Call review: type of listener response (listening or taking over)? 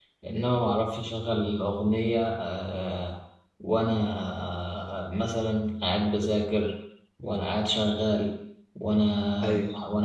listening